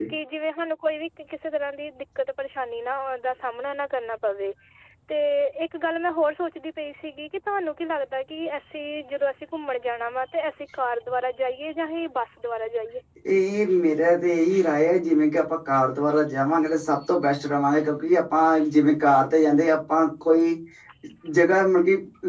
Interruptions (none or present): none